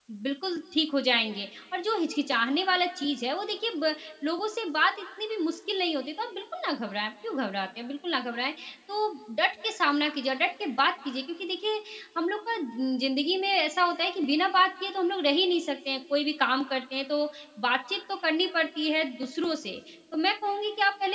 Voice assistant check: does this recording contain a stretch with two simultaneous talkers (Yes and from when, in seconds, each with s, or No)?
No